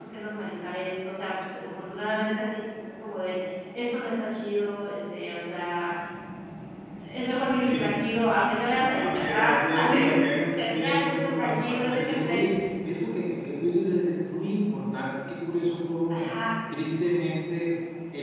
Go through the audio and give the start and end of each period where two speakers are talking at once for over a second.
8.8-10.0, 10.5-12.4

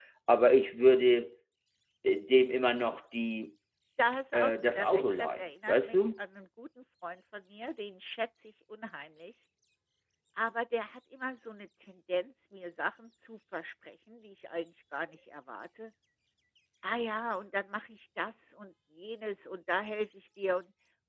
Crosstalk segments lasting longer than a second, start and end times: 4.3-6.0

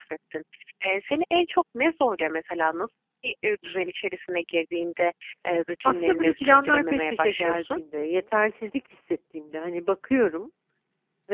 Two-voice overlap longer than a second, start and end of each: 5.8-7.8

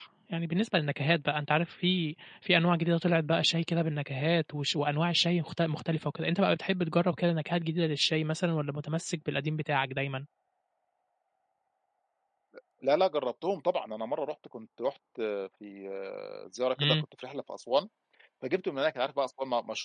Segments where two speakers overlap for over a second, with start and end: none

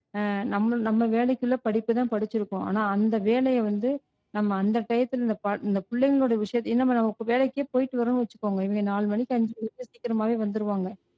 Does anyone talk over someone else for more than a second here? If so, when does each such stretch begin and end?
none

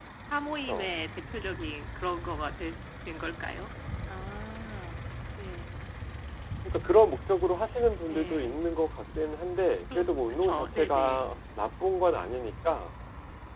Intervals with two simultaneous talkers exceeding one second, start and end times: 9.9-11.2

